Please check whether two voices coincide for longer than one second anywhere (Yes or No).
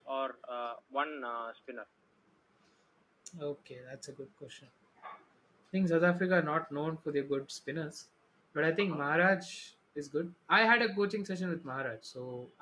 No